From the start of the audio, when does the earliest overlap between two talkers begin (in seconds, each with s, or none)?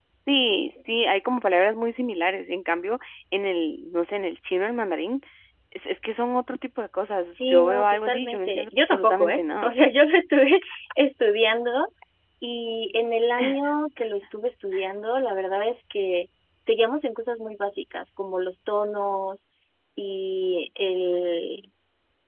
7.3 s